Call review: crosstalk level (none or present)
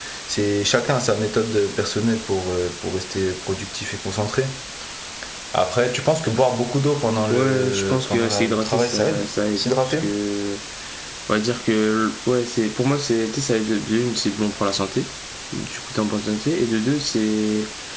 present